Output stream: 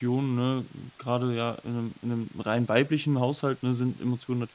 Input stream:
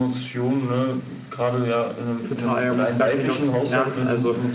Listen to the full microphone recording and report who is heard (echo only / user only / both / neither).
both